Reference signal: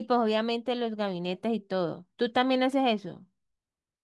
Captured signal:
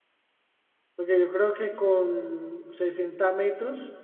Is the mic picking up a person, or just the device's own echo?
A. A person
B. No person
A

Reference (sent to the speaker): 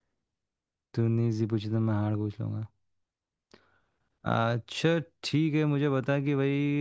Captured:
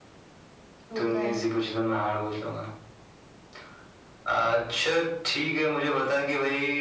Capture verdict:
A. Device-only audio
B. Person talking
B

